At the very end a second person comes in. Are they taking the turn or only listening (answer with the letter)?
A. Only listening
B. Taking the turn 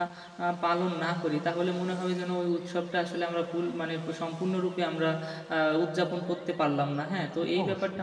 A